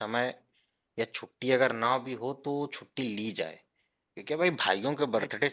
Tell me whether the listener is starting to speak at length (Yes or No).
No